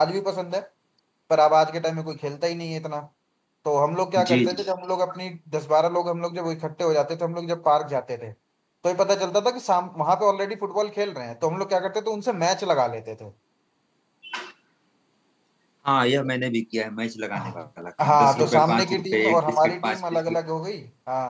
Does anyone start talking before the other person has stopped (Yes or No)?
Yes